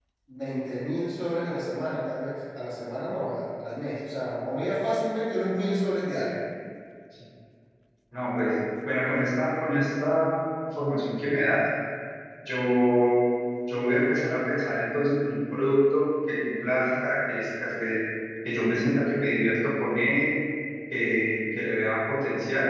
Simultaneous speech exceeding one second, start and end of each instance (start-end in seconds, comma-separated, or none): none